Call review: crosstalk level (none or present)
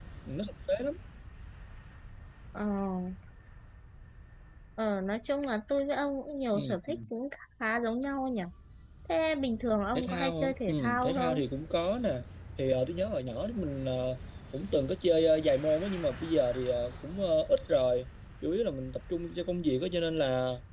present